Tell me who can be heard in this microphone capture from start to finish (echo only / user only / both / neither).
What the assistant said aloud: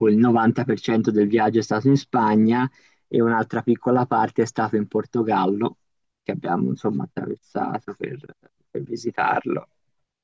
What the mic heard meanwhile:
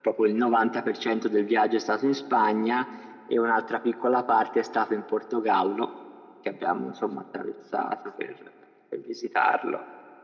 echo only